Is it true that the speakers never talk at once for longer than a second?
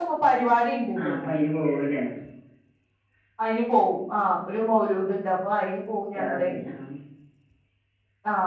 Yes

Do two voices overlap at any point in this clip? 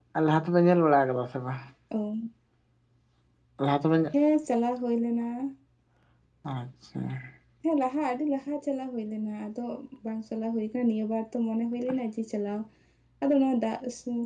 No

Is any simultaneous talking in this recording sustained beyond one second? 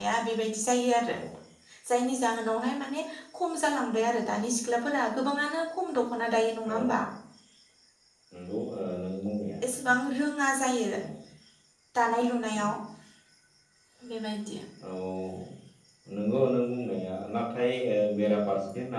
No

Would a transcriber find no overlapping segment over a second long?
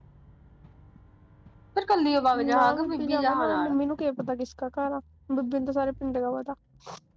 No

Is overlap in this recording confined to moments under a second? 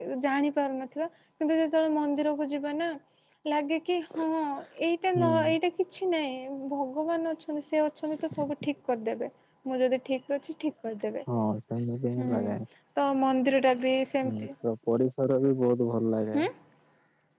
Yes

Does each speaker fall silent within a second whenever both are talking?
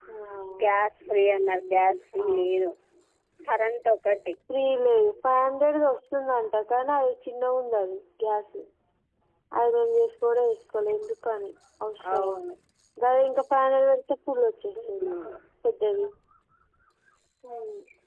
Yes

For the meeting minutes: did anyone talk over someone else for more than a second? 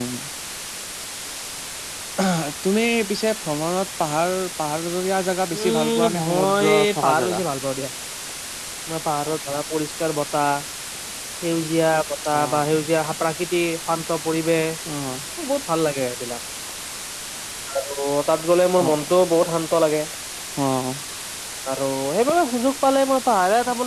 Yes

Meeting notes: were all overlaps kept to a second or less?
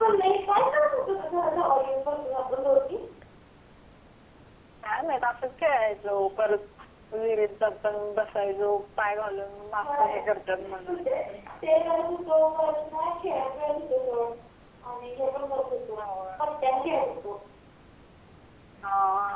Yes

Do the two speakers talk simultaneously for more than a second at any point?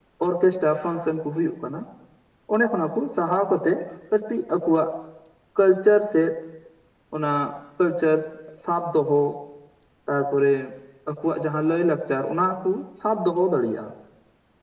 No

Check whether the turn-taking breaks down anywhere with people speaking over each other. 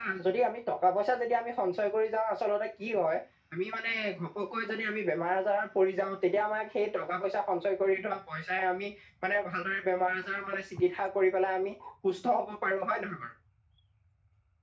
No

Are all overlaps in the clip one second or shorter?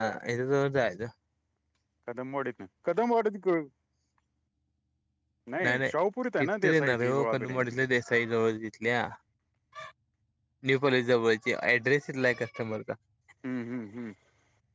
No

